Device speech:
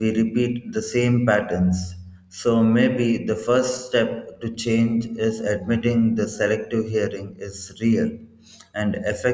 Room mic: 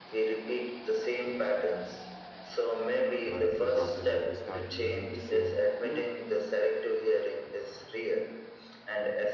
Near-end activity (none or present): present